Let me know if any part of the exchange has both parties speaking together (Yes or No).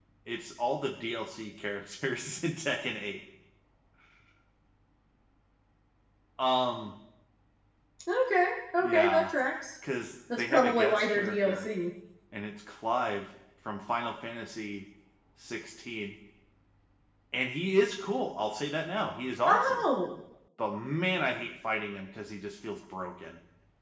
Yes